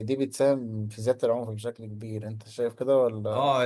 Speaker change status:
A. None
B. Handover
B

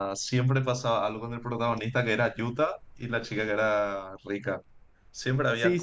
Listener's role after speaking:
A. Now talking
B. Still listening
A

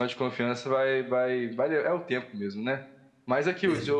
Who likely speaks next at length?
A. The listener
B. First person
B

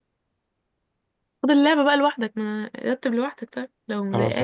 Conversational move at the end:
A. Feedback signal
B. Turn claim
B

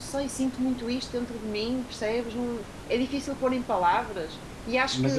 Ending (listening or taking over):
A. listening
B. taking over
B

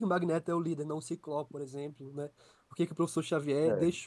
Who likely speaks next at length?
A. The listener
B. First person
B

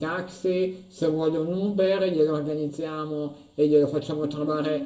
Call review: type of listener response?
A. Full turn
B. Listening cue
A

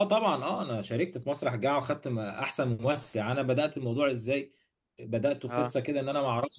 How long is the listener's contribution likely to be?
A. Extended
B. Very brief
B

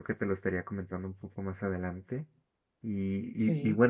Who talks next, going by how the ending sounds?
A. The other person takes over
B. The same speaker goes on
B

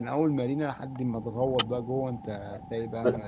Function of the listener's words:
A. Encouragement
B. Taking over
B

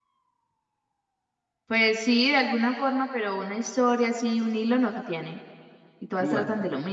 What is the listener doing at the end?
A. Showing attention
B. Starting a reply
A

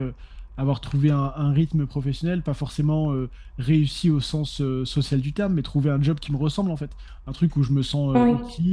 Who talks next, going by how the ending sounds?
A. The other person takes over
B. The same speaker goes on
B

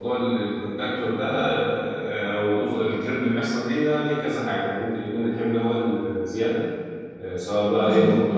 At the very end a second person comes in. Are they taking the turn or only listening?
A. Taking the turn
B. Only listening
B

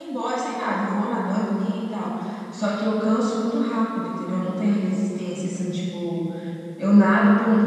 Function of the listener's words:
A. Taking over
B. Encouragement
B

